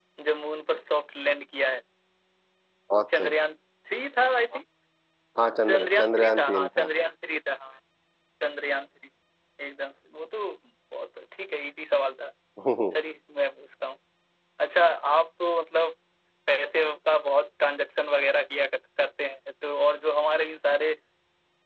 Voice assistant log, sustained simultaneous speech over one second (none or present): present